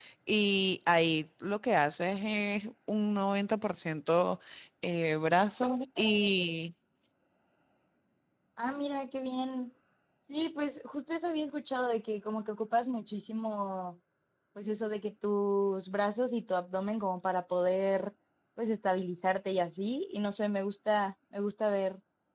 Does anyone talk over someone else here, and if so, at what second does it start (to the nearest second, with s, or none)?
none